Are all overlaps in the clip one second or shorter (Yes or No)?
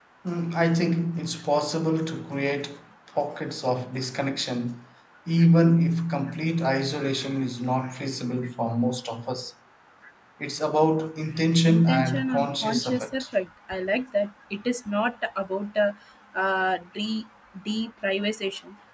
No